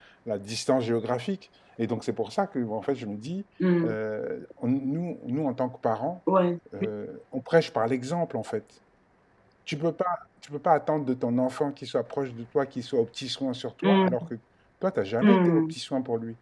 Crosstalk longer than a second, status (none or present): none